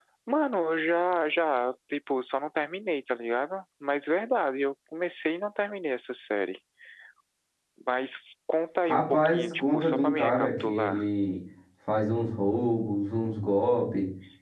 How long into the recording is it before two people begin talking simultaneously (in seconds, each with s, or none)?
8.9 s